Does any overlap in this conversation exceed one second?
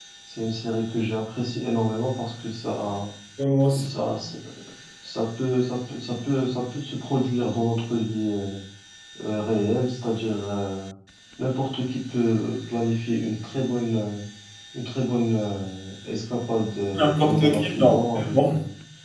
Yes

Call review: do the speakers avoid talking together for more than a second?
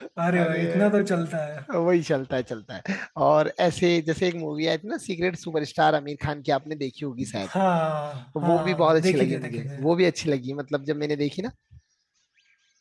No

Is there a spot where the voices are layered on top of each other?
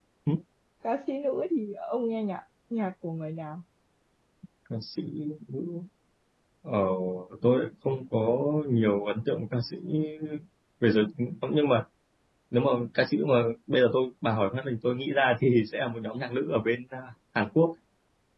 No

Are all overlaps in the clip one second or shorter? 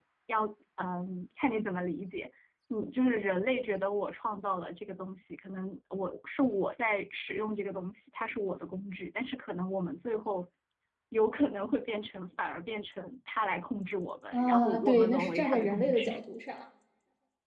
No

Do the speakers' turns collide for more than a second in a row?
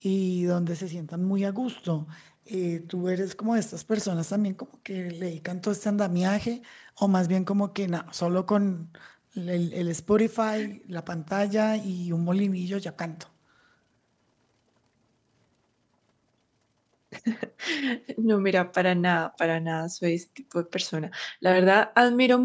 No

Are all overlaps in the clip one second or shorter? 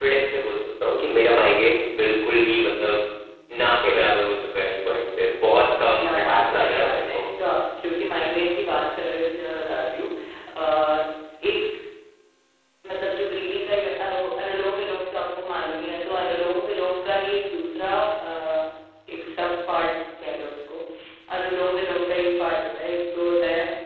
No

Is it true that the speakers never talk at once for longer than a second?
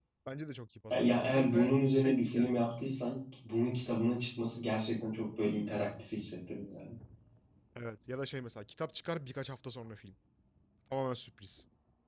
No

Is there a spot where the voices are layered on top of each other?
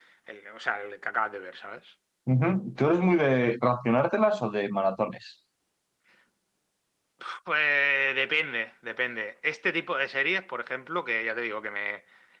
No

